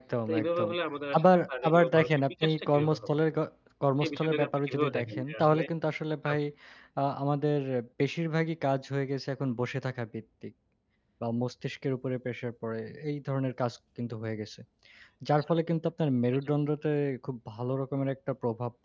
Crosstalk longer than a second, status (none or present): present